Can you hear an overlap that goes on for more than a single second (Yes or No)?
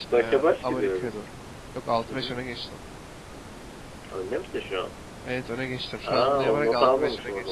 Yes